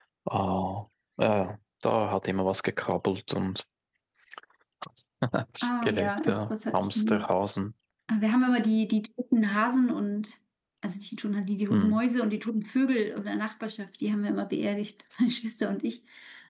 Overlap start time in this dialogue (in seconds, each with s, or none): 5.8 s